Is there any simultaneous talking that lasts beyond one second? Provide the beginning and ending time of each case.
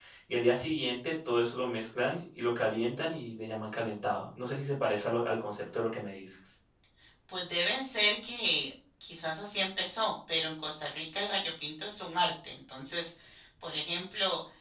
none

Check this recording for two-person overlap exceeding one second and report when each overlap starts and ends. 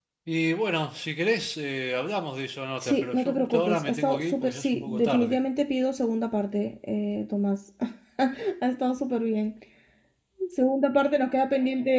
2.8-5.4

